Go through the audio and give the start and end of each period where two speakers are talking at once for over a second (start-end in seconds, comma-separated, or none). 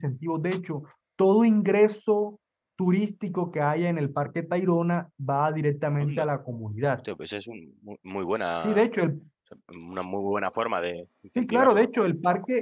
none